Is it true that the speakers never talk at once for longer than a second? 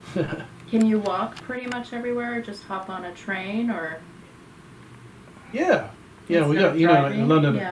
No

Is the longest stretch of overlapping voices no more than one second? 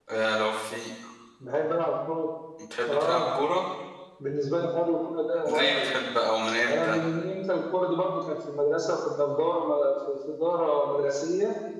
Yes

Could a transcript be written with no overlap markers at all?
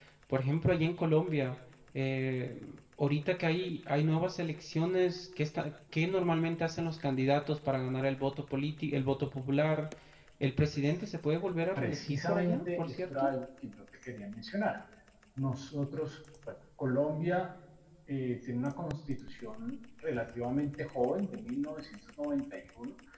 No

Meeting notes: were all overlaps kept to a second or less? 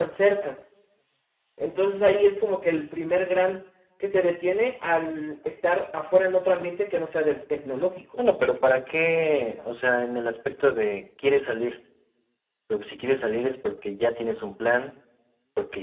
Yes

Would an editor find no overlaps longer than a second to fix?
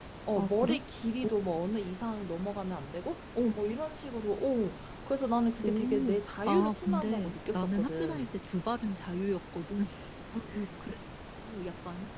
No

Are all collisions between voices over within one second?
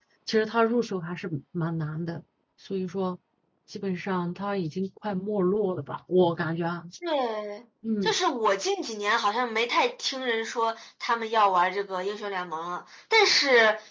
Yes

